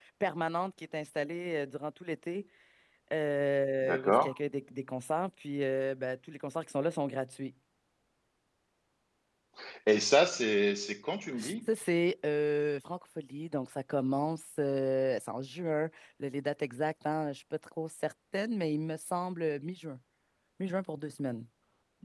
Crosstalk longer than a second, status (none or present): none